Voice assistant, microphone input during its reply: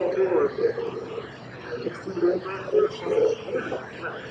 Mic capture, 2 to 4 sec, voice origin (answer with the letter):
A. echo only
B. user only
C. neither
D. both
A